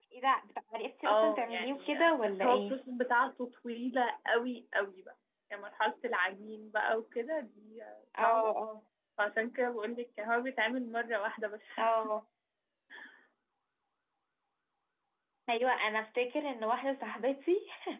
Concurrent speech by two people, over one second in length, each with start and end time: 1.1-2.8

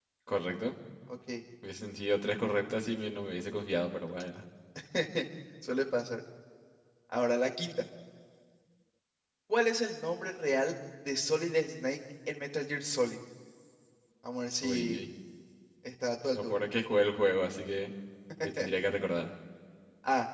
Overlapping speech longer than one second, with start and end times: none

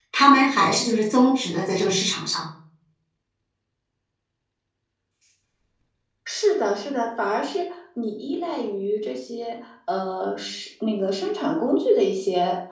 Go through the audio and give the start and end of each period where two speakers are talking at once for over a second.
none

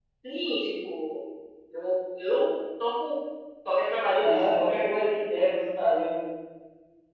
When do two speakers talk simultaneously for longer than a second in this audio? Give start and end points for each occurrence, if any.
none

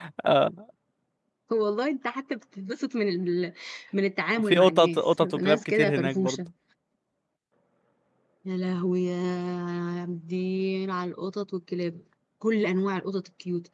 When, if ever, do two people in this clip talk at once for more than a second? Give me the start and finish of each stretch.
4.5-6.4

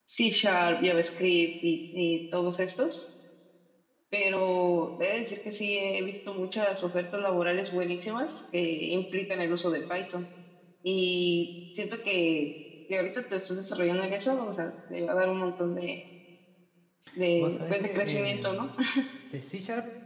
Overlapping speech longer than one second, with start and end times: 17.4-18.7

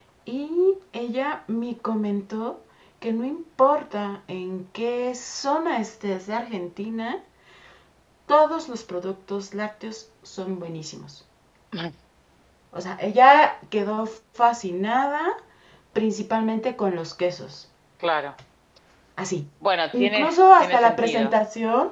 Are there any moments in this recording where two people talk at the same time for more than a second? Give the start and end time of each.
19.9-21.3

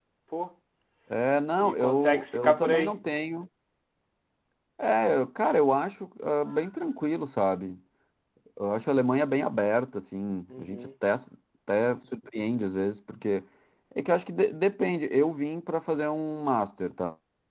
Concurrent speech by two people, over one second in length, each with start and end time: 1.6-2.9

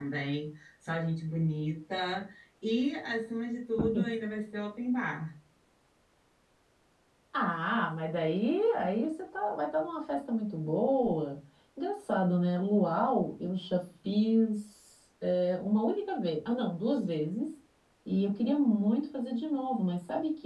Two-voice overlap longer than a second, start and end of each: none

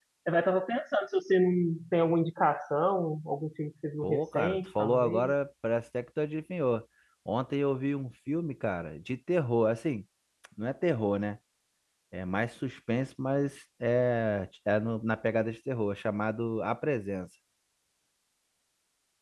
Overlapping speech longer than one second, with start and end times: 4.0-5.3

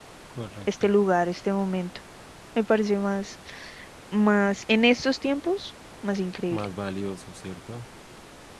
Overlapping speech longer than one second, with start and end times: none

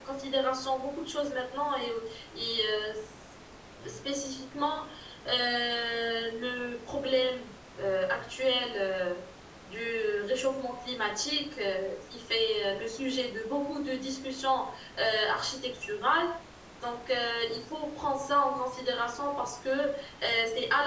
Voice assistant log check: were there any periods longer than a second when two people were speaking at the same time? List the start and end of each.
none

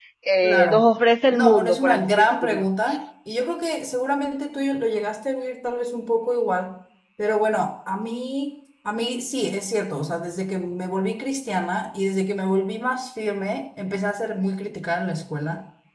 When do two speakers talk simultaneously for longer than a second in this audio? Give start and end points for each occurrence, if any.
1.3-2.6

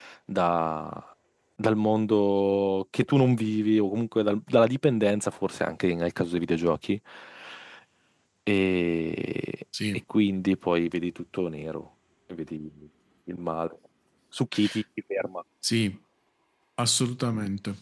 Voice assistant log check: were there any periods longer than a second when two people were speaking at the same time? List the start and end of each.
none

